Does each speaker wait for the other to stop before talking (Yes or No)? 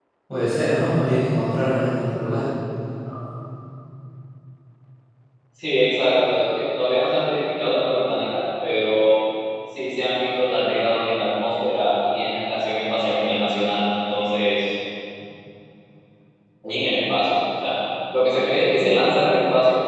Yes